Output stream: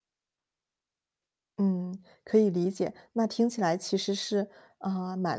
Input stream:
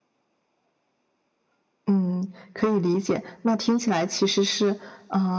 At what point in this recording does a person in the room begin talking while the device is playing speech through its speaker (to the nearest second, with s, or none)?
none